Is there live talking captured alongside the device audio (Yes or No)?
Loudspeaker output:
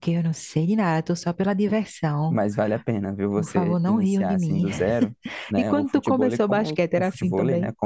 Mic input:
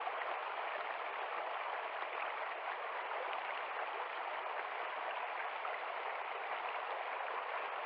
No